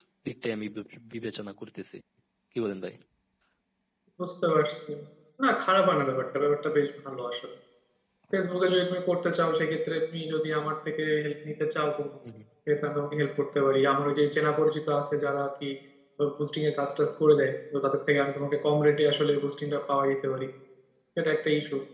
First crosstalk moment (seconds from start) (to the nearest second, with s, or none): none